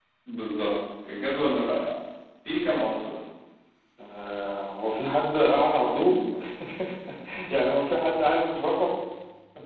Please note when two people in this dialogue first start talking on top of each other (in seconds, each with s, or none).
none